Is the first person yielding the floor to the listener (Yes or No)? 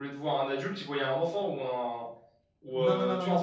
Yes